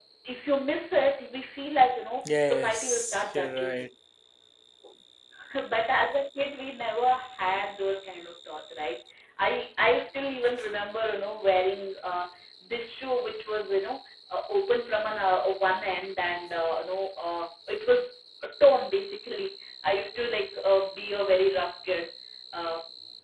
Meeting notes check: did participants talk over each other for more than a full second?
Yes, from 2.2 s

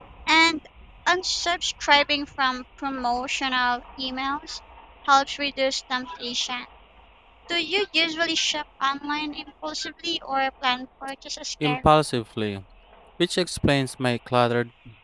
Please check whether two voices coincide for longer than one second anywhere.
No

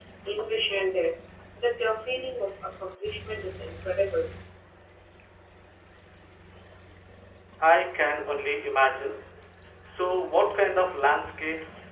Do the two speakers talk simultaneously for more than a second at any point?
No

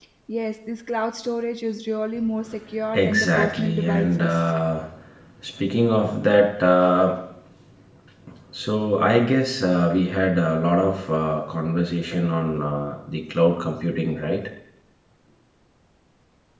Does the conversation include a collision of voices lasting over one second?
Yes, from 2.9 s

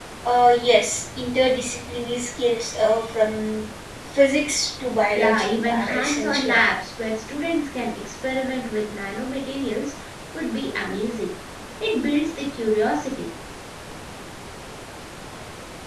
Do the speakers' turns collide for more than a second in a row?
Yes, from 5.2 s

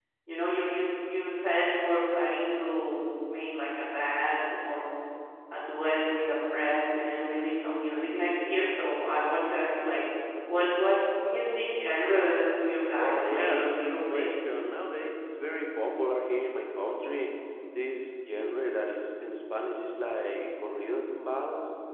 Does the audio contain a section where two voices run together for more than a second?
Yes, from 13.0 s

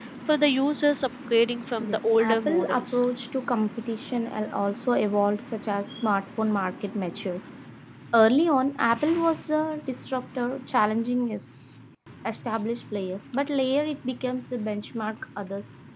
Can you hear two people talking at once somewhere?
Yes, from 1.8 s

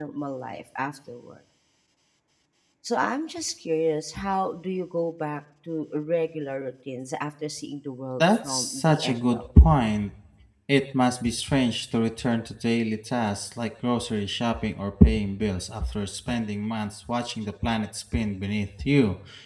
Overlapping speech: Yes, from 8.2 s

